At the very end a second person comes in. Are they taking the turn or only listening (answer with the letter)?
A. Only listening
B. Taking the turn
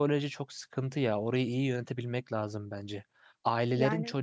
A